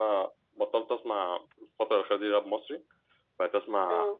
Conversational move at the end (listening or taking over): listening